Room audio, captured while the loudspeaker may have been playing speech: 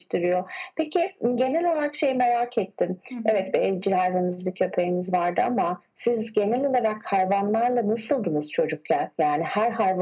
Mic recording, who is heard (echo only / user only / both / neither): both